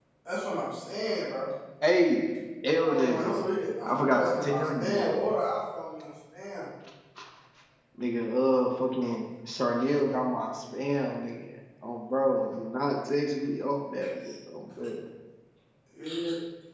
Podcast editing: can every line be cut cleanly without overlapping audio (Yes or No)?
No